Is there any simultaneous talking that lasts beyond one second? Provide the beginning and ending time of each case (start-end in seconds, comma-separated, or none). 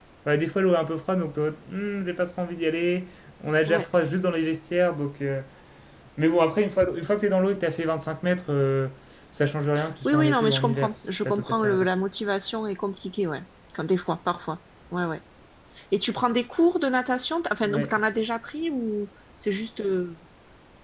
10.1-11.9